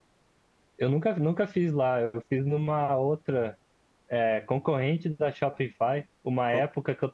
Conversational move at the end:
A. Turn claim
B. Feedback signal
B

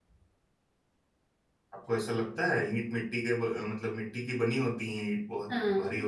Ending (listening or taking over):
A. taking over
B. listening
A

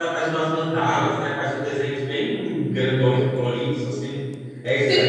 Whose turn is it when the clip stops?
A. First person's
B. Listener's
B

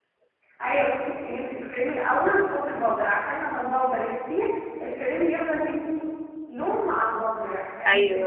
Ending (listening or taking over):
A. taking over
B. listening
B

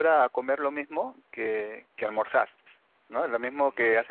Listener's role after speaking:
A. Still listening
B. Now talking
B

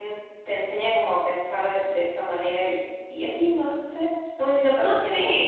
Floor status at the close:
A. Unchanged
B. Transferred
B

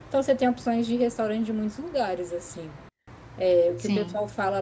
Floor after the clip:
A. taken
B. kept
B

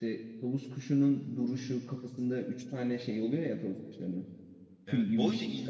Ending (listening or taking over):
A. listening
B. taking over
B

